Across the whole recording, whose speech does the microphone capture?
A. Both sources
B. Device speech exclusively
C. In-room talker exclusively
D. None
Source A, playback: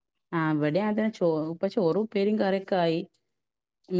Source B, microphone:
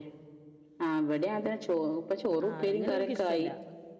A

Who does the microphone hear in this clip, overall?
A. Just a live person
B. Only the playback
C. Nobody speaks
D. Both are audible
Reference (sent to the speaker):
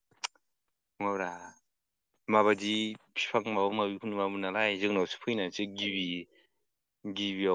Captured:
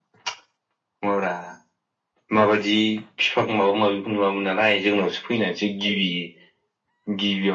B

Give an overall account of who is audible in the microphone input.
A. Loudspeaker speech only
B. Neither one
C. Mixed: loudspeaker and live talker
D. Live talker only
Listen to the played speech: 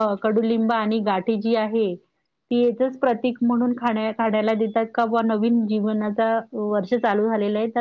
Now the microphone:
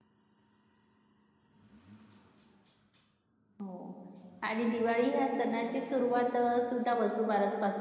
D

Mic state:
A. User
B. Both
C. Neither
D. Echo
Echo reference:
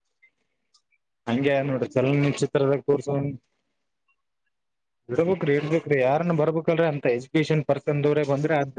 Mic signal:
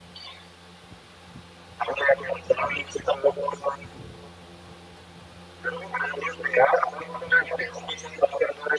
D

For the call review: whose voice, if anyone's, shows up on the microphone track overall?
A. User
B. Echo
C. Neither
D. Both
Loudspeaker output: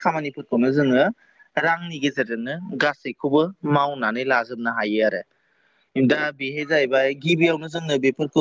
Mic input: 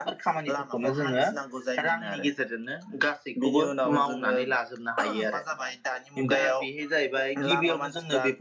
D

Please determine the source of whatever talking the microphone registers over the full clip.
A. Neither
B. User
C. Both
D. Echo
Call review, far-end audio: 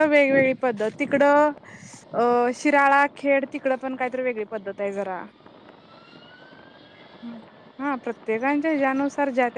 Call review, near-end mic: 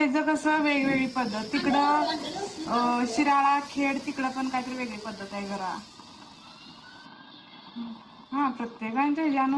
C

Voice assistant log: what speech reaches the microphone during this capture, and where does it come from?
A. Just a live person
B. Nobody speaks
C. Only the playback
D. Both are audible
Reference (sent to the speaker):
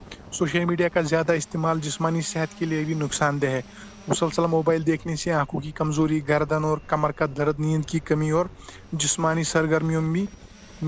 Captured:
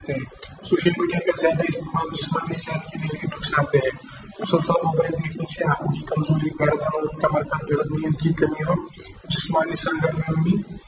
C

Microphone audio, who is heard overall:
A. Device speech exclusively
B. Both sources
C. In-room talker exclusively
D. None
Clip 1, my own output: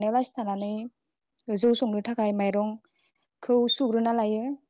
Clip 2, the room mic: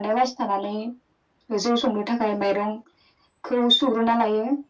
A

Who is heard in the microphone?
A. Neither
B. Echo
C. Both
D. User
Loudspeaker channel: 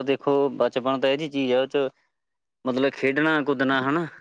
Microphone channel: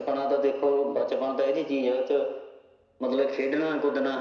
B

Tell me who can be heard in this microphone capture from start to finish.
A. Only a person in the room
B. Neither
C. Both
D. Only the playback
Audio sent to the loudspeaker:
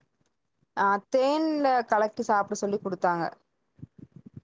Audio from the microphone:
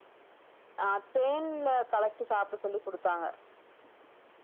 D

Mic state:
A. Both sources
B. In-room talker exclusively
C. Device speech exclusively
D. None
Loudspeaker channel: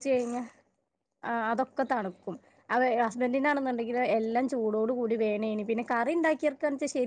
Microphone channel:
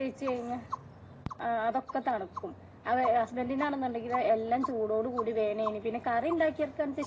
C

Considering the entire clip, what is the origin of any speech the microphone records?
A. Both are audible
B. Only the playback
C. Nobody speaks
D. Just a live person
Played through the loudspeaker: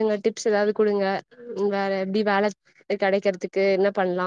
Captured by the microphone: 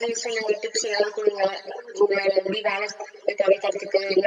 B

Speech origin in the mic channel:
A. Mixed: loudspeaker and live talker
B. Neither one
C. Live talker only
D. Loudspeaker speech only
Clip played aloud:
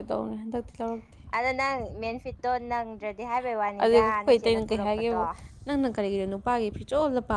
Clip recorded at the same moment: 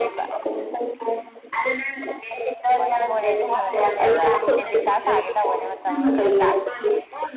A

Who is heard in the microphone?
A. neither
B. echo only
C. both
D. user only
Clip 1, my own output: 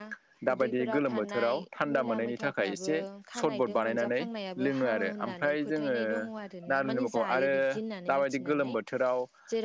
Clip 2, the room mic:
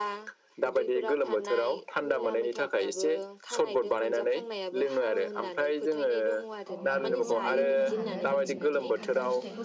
C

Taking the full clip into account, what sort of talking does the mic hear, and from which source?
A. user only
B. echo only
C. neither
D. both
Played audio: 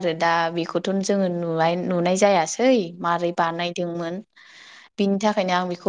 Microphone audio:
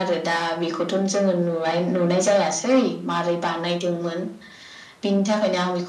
B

